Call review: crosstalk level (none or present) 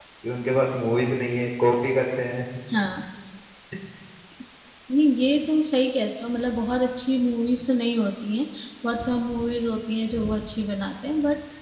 none